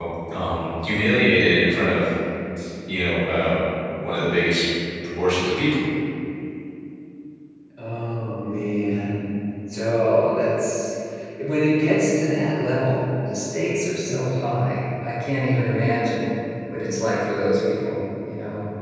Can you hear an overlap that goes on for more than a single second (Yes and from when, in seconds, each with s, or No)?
No